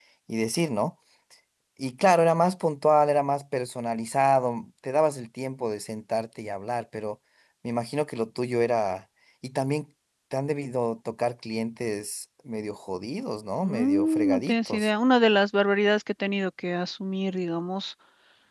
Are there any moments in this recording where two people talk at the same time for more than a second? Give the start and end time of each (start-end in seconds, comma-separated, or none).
13.6-14.9